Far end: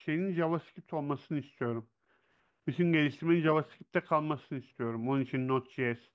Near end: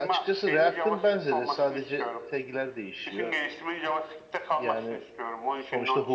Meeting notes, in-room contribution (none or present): present